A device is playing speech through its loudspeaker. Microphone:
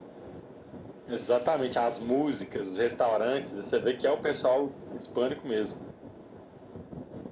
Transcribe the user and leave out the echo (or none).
none